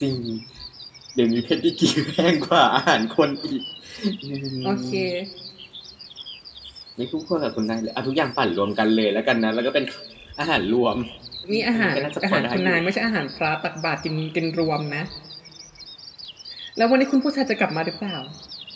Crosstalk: present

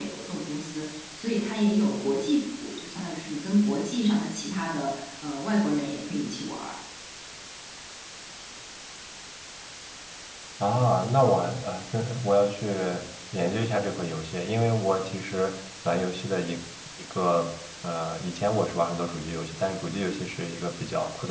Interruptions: none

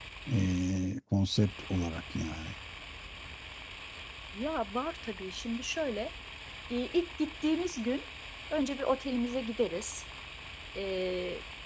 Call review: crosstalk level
none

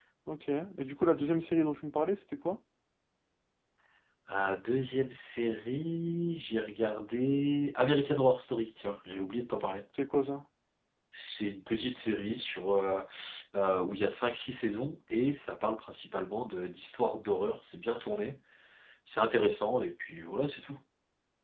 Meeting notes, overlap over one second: none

